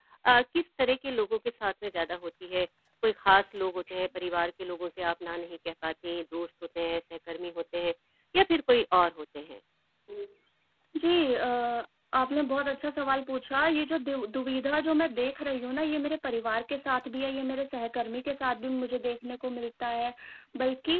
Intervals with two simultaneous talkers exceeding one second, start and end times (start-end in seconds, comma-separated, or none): none